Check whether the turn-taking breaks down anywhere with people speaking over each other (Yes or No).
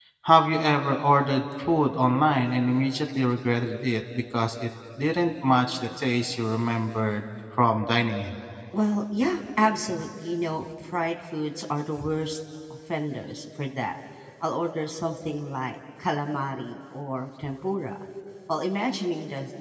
No